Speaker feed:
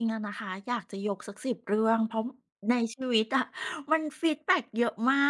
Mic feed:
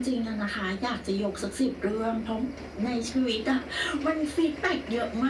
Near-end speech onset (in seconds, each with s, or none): none